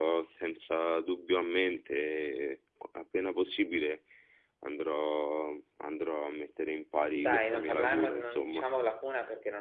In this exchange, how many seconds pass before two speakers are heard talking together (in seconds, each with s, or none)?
7.1 s